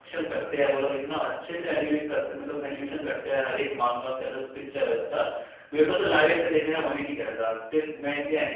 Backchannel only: No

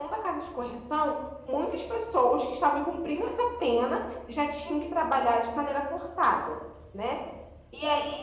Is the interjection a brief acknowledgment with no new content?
Yes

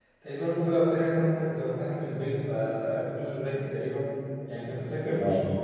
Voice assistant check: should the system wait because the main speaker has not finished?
Yes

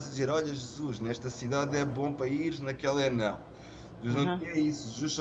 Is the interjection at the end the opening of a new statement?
No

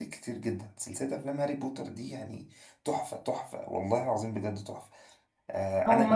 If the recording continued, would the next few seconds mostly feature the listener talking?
Yes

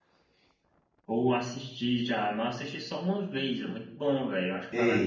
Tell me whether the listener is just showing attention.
No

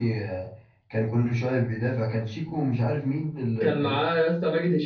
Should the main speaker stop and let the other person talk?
Yes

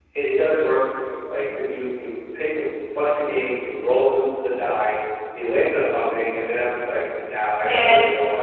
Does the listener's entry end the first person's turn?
No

